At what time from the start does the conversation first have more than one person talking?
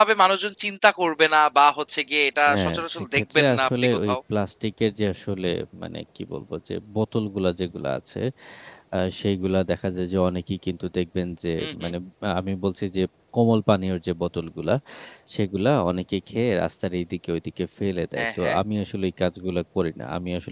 2.5 s

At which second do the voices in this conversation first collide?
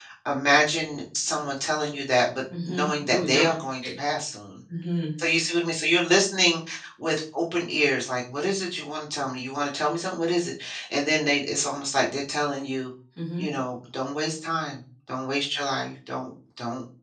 2.5 s

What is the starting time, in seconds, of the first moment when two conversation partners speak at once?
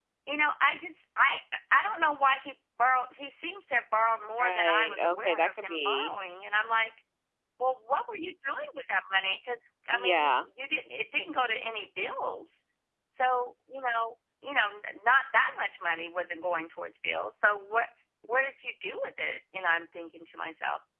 4.4 s

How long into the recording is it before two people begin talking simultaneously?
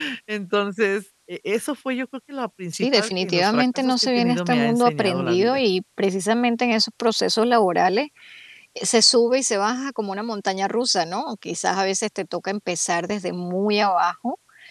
2.7 s

